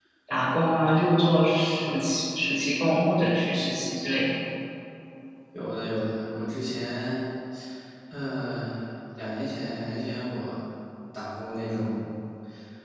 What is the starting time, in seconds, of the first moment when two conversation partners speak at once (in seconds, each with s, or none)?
none